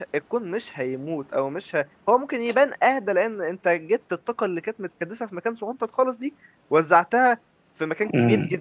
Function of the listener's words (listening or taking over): taking over